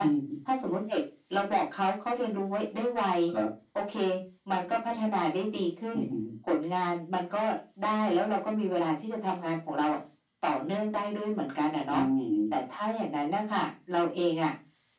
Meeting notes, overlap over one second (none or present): none